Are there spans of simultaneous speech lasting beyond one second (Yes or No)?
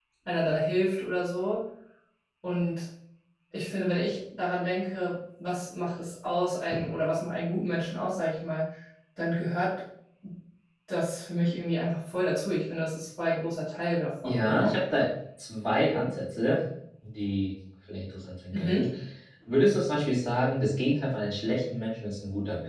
No